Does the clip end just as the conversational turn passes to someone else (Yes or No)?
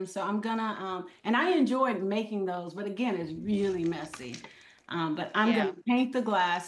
No